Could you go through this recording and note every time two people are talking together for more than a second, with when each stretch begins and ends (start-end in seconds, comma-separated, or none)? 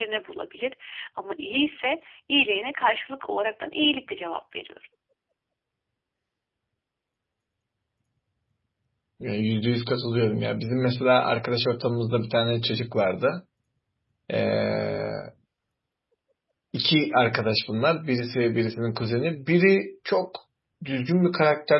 none